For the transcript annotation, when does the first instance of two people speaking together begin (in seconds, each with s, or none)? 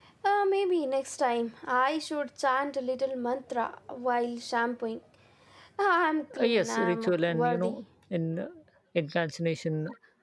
6.4 s